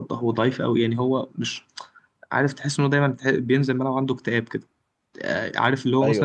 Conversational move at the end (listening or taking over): listening